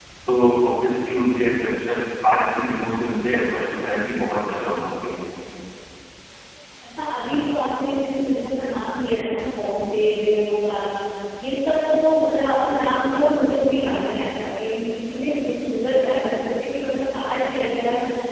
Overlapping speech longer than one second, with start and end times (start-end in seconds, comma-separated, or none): none